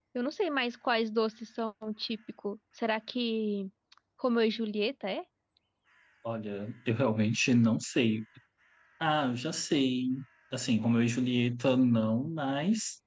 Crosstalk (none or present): none